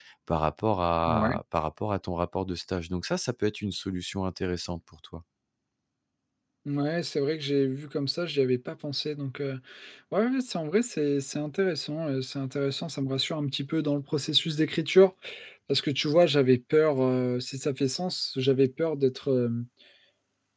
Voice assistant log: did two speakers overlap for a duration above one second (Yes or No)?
No